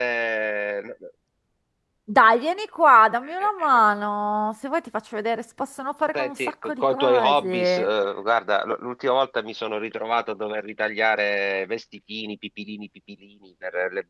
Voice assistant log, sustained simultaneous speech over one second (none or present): present